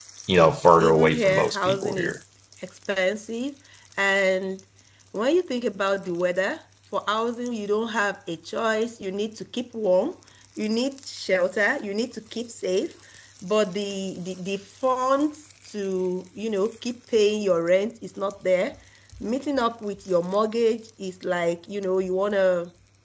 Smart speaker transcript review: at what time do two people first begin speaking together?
0.8 s

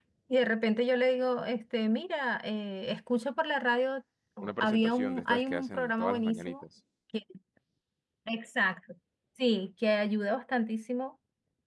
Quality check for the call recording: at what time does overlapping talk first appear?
4.4 s

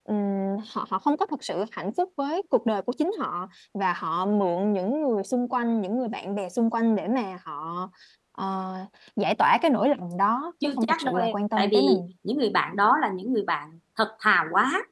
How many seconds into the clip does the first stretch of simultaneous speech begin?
10.6 s

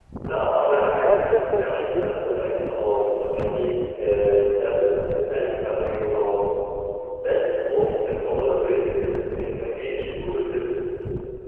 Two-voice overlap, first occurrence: 1.0 s

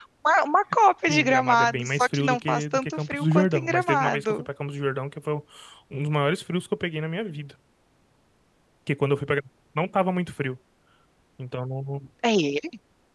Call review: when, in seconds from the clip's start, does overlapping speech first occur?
1.1 s

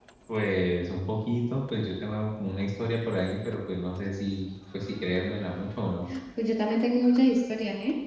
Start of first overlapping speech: none

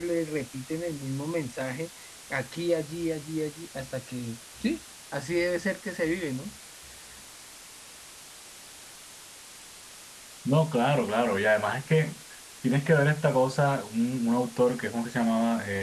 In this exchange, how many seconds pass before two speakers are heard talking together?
none

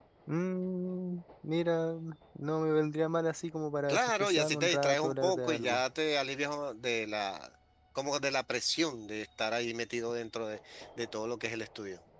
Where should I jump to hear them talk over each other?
3.9 s

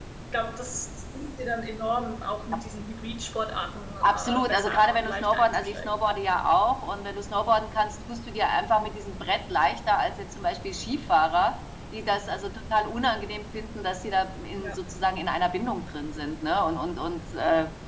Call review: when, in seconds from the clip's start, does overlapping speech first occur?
4.0 s

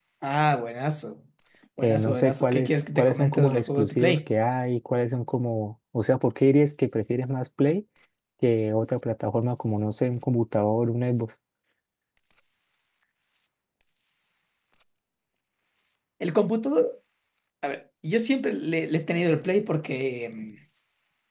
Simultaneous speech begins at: 1.8 s

